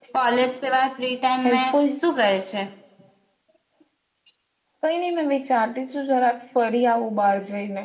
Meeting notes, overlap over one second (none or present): none